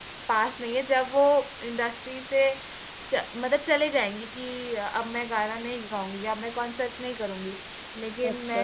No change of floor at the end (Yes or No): Yes